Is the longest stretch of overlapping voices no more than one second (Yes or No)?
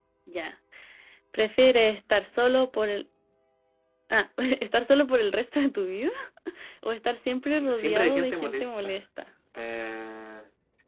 No